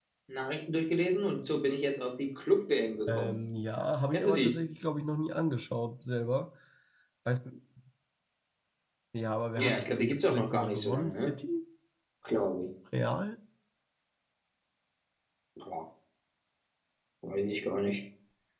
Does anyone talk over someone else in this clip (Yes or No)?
Yes